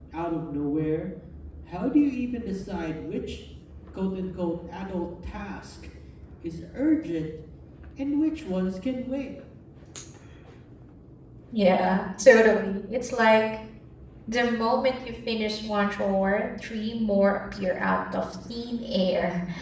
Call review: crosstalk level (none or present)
none